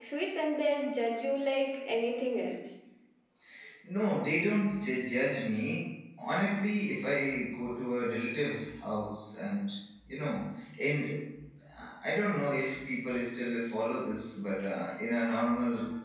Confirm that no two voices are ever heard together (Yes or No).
Yes